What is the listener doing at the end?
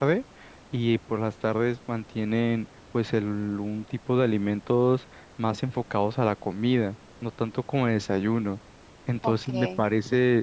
listening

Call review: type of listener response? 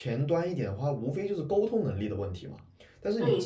taking over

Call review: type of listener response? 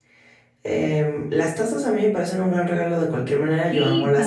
taking over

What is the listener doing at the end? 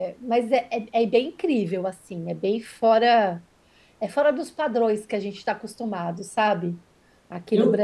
taking over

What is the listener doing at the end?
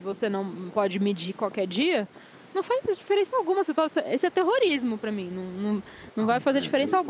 taking over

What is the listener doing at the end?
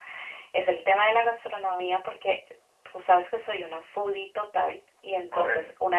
listening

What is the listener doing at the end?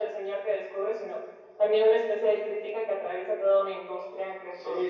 taking over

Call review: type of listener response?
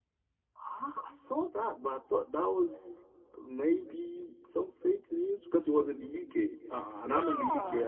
listening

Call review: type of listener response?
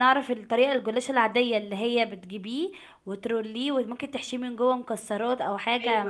taking over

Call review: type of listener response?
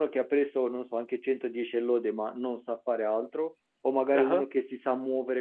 listening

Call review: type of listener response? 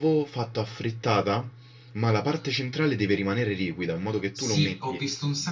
taking over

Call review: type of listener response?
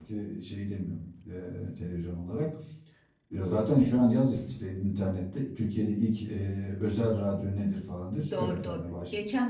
taking over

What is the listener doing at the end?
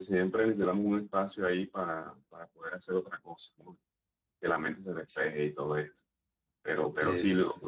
listening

